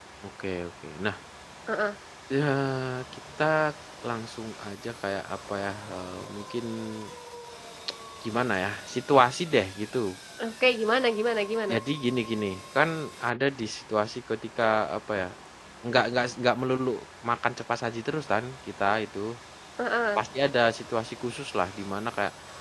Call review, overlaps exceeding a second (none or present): none